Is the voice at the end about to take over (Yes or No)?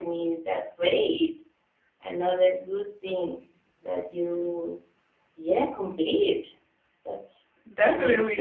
Yes